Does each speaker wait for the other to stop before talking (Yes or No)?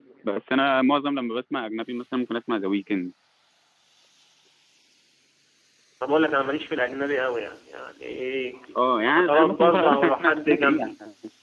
No